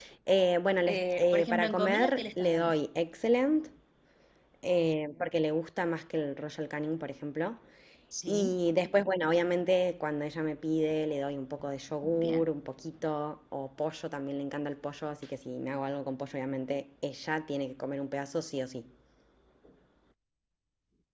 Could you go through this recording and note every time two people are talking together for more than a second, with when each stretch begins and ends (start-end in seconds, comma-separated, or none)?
0.9-2.7